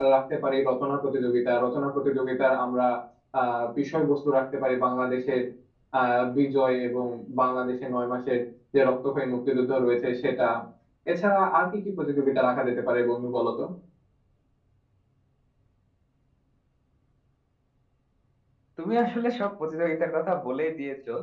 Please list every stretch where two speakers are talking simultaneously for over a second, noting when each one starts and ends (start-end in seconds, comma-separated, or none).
none